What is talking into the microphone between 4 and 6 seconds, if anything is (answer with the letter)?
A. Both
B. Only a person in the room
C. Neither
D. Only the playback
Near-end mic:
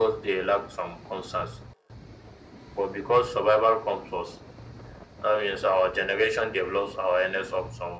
D